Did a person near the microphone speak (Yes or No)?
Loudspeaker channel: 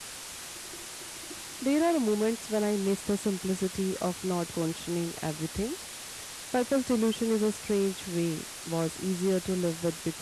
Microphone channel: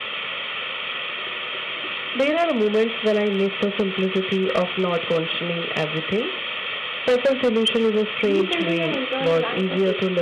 Yes